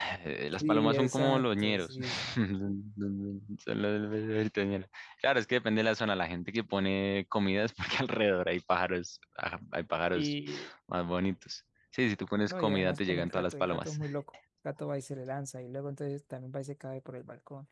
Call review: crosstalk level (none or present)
present